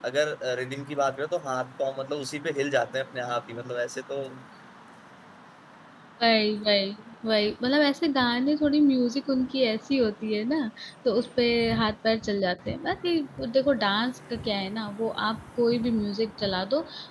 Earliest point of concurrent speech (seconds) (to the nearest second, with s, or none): none